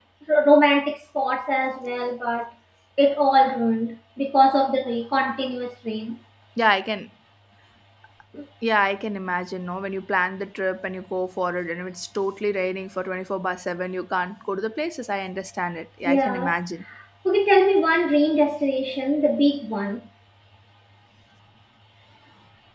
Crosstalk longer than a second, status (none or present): none